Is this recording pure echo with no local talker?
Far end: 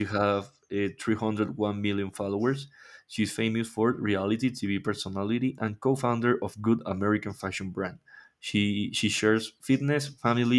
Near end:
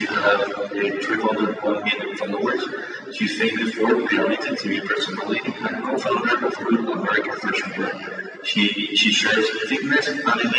Yes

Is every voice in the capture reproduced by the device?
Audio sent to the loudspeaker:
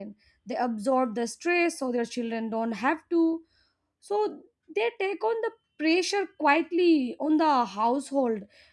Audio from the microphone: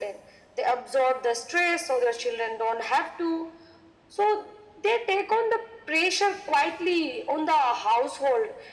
Yes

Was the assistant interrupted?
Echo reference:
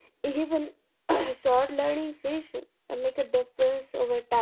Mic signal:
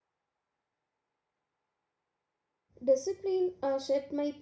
Yes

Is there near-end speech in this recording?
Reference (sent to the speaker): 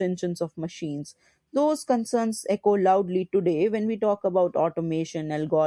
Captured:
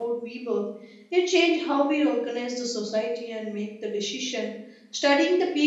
Yes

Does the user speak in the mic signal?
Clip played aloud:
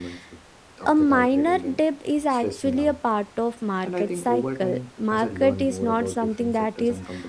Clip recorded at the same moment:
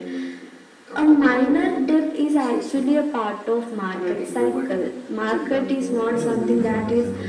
Yes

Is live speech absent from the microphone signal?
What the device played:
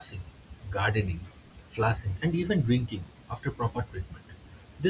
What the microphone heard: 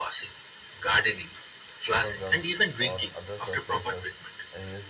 No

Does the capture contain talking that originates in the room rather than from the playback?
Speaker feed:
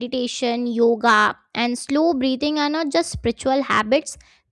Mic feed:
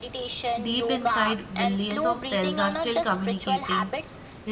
Yes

